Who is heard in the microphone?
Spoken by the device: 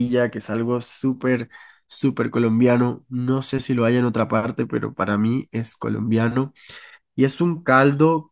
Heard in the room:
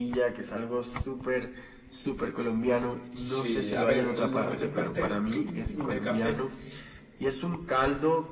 both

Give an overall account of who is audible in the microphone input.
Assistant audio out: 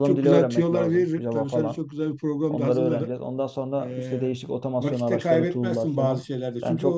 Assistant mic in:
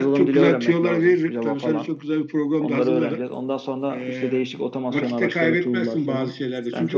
both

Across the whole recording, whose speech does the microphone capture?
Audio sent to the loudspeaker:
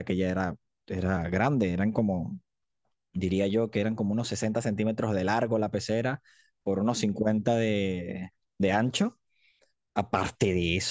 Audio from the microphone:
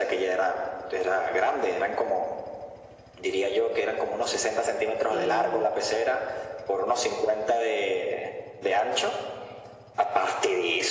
both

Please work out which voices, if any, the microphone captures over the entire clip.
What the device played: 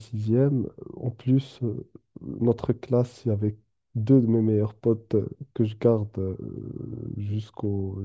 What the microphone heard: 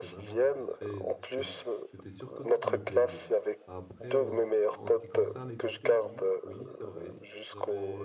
both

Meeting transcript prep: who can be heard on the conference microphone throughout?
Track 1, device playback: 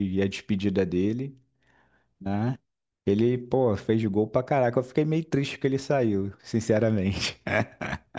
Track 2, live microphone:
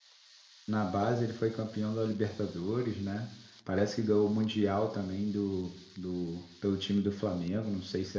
user only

